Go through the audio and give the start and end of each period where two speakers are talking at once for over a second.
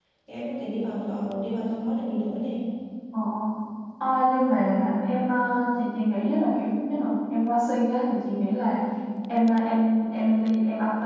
none

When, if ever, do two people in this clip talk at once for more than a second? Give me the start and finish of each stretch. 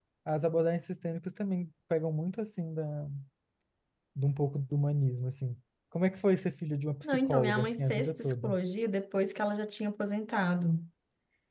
7.0-8.6

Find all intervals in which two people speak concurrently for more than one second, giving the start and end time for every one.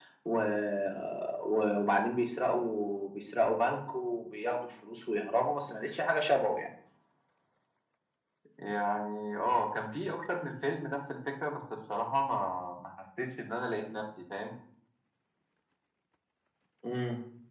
none

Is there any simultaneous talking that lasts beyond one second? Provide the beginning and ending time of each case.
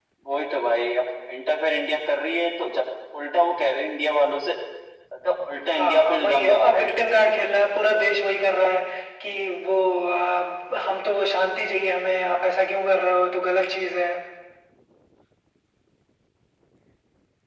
5.7-7.0

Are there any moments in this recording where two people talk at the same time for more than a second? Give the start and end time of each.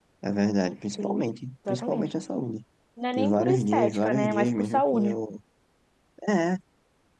3.1-5.2

